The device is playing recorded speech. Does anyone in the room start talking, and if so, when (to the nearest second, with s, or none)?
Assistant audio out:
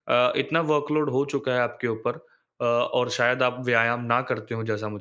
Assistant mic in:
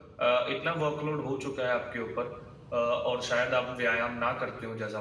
none